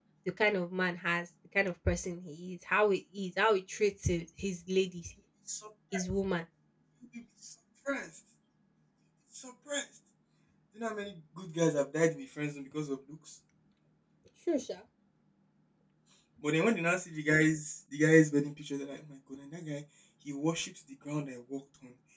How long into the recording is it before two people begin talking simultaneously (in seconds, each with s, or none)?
none